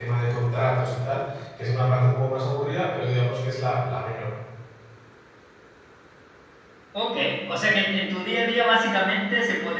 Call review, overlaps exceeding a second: none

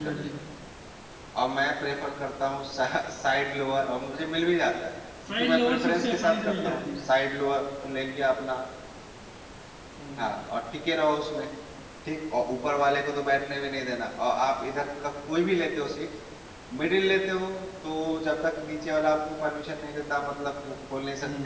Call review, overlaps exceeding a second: present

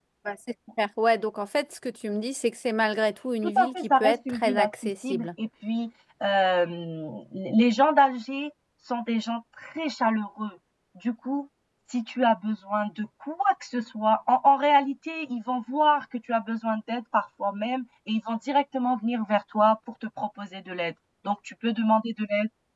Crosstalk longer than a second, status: present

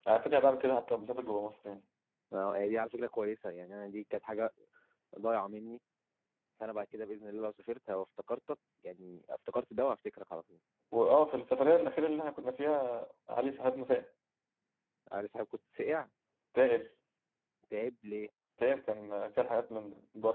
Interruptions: none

